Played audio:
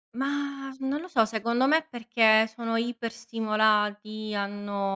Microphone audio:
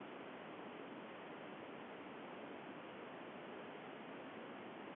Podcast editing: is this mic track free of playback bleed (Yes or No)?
Yes